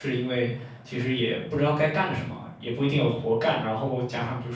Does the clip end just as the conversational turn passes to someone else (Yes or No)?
No